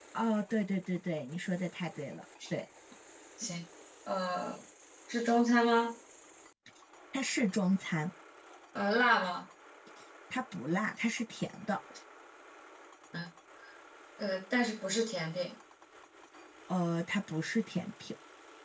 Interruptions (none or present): none